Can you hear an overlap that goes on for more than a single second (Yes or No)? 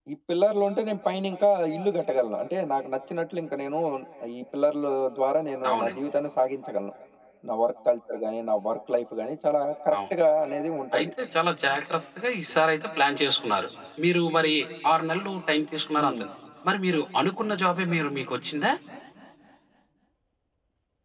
No